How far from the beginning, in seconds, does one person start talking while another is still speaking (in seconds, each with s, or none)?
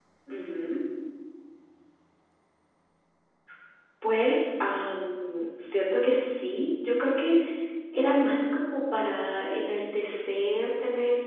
none